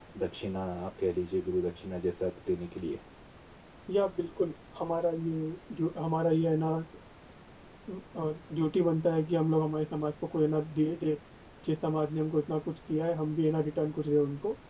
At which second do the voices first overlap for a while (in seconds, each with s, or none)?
none